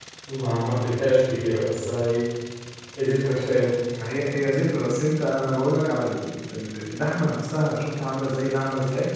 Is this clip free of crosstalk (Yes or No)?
Yes